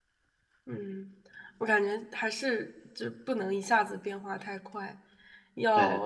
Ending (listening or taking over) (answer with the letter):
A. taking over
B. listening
B